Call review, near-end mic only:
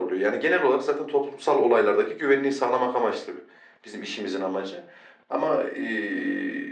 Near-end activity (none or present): none